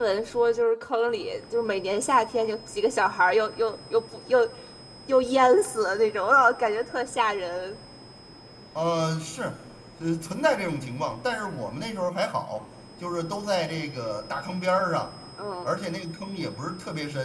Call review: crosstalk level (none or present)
none